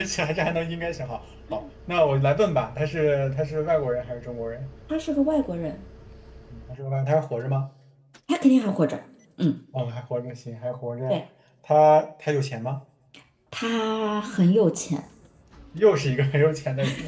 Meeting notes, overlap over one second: none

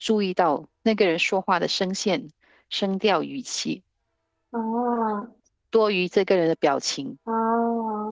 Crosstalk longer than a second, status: none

